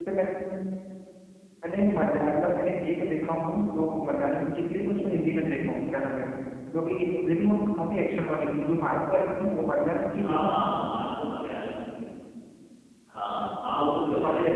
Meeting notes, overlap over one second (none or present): none